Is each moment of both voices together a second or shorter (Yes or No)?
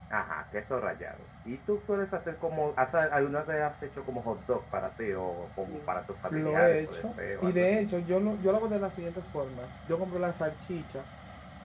No